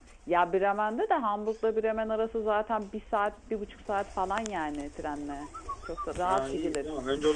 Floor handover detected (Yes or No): Yes